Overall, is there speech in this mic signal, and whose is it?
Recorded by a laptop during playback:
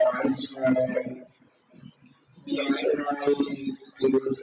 echo only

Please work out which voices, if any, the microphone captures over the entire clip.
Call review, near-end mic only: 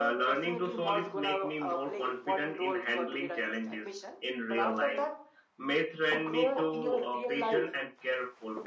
both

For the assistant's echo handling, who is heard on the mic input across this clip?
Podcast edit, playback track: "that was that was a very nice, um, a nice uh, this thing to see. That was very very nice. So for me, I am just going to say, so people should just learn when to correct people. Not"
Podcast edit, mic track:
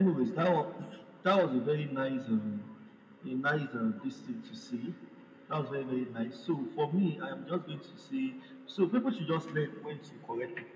echo only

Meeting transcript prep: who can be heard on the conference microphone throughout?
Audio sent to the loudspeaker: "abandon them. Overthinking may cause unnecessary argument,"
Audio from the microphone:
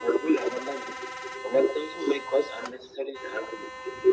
echo only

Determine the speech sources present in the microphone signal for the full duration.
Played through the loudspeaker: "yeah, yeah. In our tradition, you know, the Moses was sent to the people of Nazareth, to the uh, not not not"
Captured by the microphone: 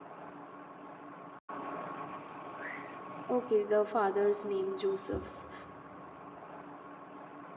user only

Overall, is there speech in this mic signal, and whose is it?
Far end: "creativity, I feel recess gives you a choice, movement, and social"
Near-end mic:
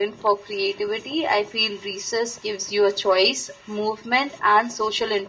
echo only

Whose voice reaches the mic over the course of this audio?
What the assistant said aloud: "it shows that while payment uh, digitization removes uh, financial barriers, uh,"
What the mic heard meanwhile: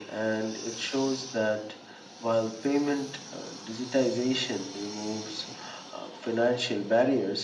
echo only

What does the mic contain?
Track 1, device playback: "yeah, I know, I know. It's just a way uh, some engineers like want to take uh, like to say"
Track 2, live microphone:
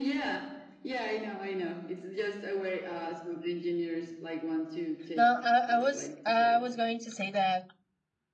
both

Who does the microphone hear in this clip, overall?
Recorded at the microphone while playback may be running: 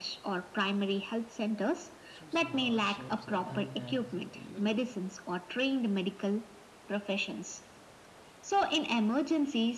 both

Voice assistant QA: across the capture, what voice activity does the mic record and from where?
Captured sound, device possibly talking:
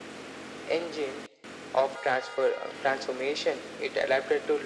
echo only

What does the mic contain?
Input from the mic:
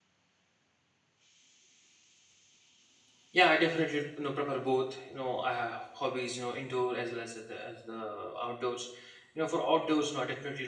user only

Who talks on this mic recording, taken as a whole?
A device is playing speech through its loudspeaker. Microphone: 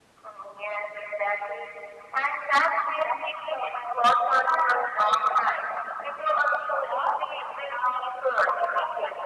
echo only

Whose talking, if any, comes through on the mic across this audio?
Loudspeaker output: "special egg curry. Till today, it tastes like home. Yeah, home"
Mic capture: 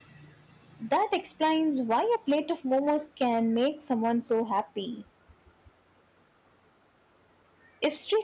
user only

